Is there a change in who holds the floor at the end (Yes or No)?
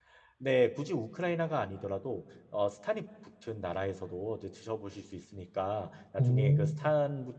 No